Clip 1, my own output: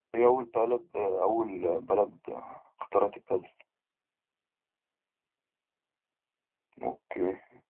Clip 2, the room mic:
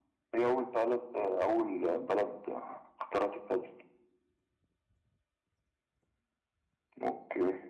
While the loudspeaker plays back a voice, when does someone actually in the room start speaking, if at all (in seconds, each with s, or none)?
none